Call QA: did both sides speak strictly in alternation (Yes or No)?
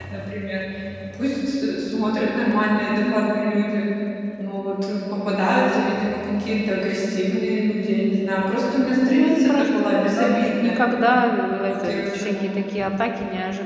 No